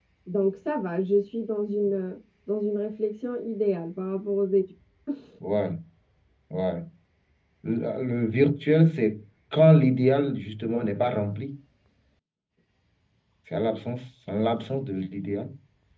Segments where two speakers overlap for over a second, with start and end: none

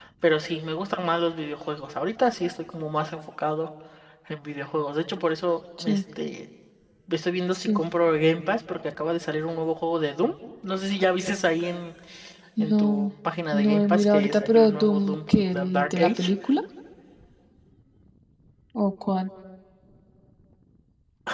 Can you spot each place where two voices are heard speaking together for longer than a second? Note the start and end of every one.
13.5-16.3

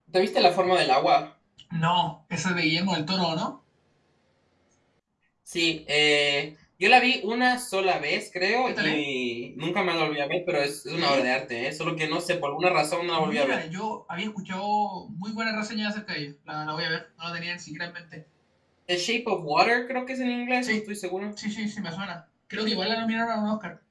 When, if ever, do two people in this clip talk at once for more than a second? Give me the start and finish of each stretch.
none

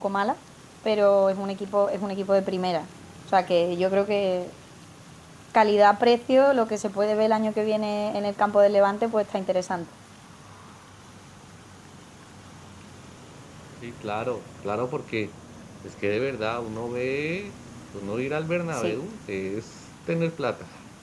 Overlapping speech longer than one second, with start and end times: none

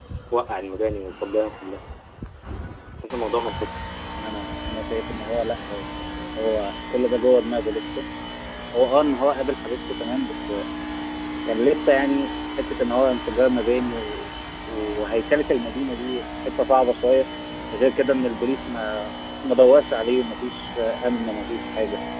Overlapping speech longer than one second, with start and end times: none

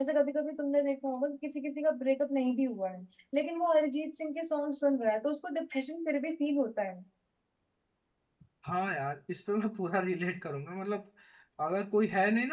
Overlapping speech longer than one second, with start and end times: none

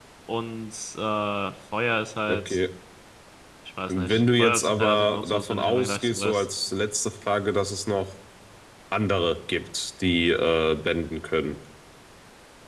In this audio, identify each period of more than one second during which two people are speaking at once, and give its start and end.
3.9-6.5

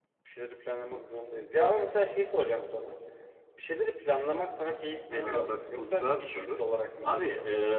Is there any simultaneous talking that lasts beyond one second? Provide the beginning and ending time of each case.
5.1-6.6

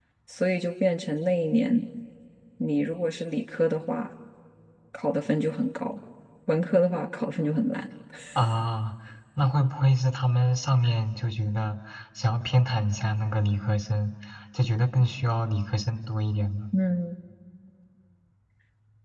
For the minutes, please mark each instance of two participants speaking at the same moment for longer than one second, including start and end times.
none

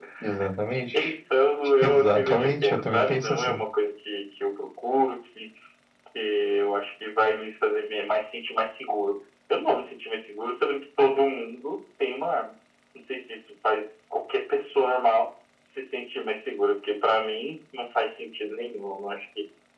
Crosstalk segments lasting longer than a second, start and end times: 1.8-3.6

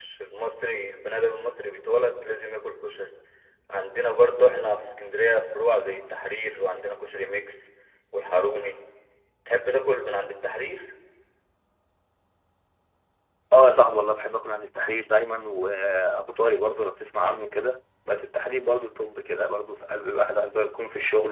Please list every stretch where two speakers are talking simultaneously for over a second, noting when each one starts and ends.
none

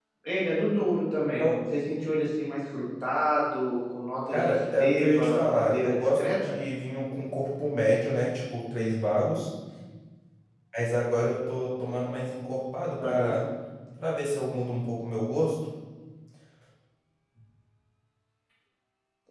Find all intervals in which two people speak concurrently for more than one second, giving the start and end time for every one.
4.3-6.6

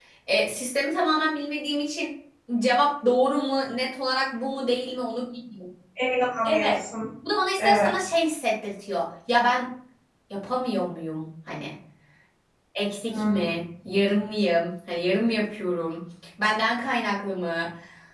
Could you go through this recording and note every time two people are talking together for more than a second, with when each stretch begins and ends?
none

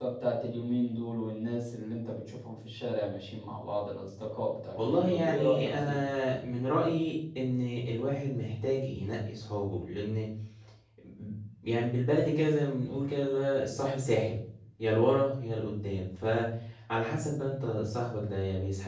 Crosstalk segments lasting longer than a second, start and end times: 4.7-6.0

